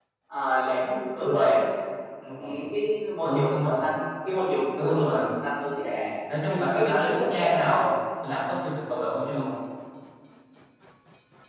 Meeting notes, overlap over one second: present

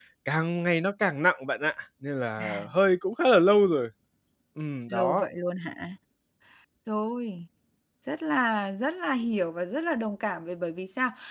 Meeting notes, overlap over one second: none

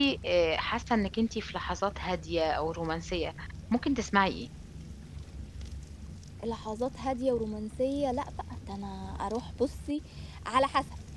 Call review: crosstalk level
none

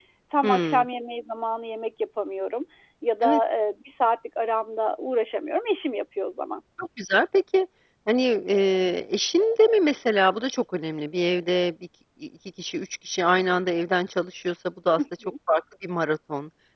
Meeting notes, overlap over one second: none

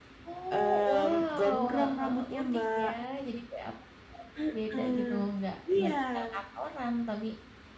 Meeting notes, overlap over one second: present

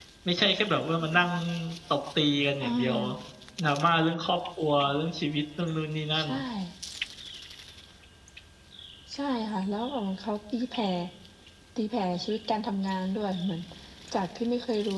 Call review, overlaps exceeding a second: none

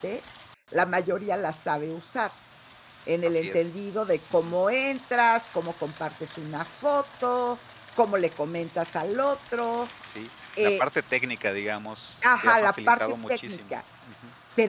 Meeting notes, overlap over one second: present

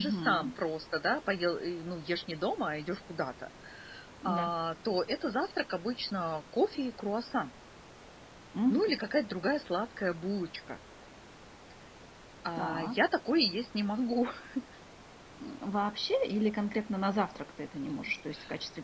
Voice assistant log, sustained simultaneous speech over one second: none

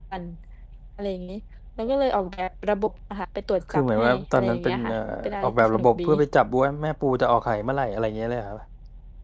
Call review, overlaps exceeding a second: present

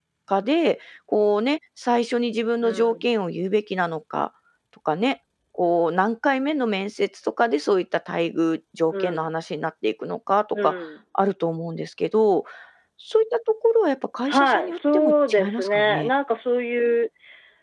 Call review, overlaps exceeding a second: present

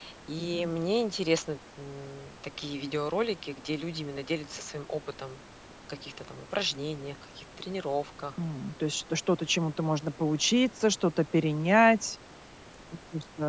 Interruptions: none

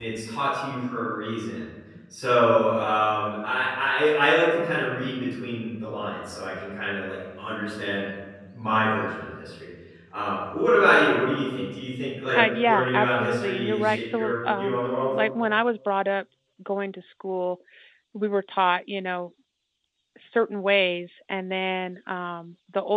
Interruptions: present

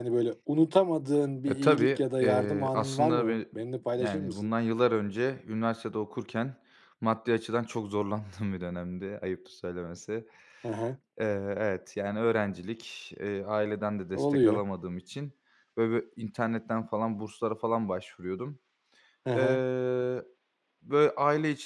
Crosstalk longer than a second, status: present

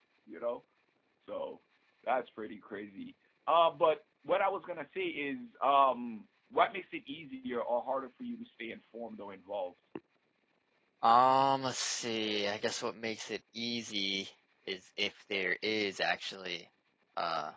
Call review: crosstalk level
none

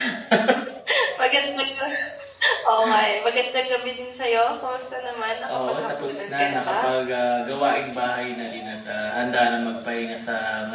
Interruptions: present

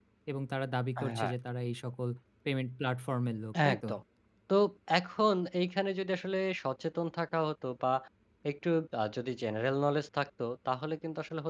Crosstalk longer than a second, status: none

